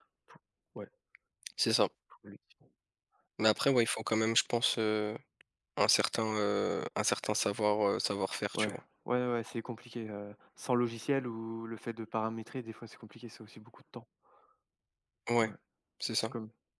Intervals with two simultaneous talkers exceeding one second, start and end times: none

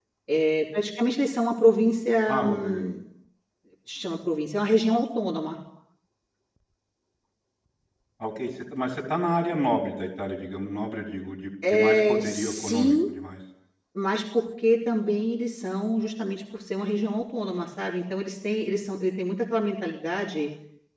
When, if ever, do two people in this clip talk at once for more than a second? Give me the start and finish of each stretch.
11.7-12.9

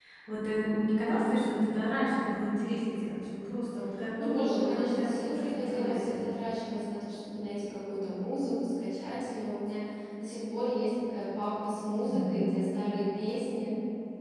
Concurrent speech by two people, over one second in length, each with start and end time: 4.2-6.1

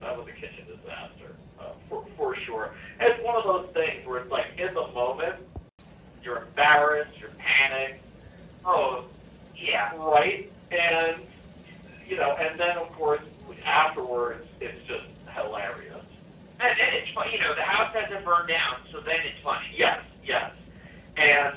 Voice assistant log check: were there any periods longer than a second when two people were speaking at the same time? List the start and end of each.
none

